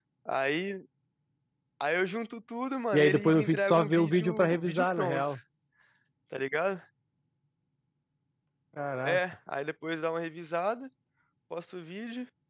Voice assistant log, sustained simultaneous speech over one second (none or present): present